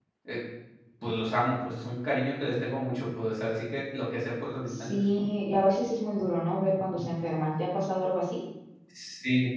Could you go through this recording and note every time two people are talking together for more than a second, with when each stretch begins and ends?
none

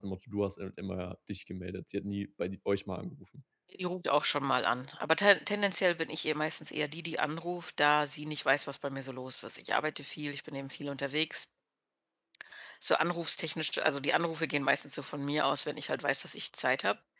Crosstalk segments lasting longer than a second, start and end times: none

